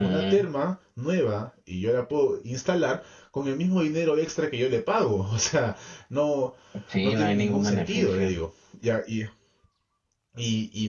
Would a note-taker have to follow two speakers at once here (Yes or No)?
Yes